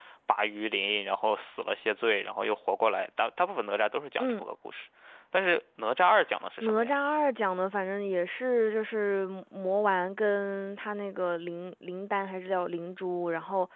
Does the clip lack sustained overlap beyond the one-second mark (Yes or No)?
Yes